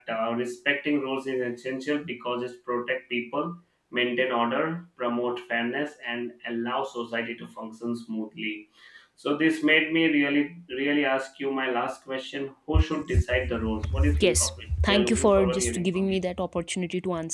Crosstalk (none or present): present